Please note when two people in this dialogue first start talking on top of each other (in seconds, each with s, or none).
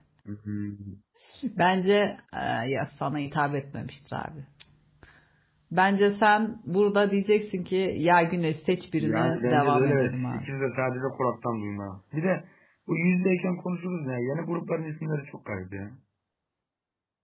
9.0 s